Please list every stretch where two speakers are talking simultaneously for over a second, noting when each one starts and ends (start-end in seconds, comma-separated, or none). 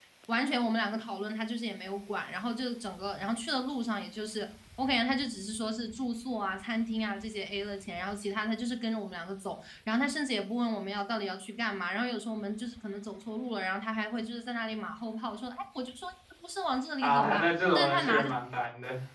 17.0-18.3